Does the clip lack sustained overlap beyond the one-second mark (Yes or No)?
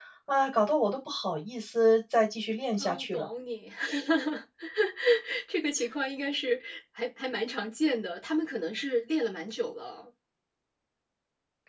Yes